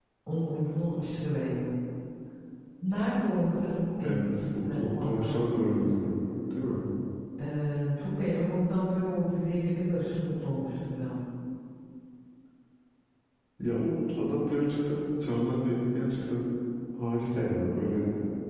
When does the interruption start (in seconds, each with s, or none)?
4.0 s